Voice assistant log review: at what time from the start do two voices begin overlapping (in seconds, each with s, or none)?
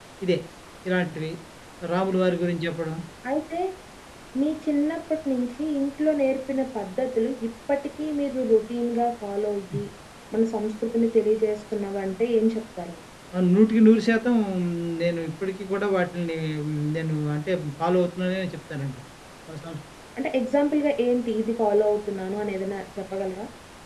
none